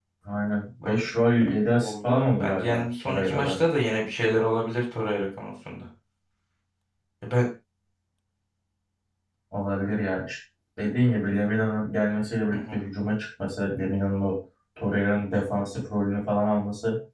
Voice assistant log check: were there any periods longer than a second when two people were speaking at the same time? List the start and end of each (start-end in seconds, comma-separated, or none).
1.8-3.6